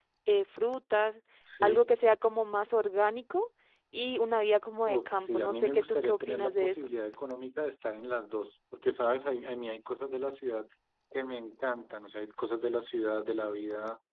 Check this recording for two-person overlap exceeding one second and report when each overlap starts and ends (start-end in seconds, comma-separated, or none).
4.9-6.9